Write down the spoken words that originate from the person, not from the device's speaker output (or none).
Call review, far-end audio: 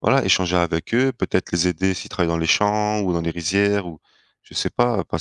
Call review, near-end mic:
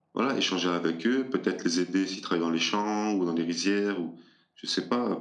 none